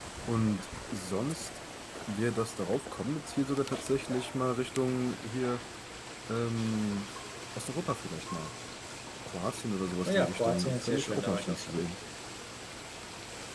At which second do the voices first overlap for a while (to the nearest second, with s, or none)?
10 s